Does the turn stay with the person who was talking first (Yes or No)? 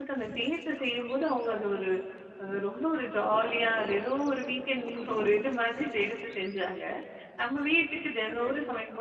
Yes